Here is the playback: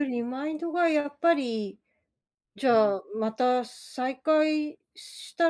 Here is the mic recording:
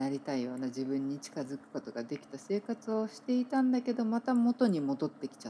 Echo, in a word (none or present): none